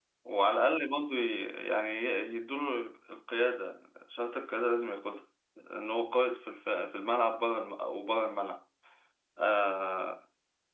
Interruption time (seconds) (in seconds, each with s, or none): none